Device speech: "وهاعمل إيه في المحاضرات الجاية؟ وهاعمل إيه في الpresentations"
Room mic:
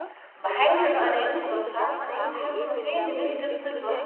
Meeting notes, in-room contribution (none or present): present